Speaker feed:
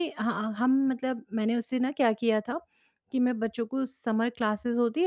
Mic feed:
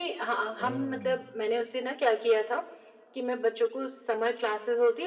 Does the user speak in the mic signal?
Yes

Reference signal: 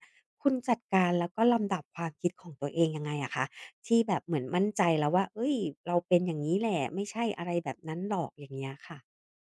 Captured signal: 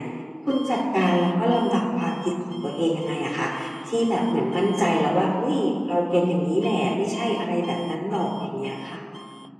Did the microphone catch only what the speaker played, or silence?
Yes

